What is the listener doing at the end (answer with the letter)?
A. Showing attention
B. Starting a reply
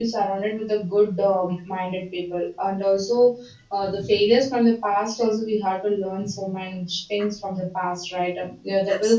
A